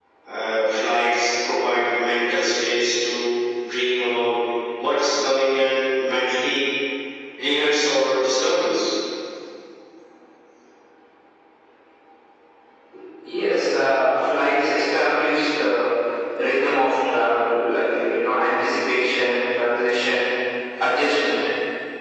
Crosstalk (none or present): none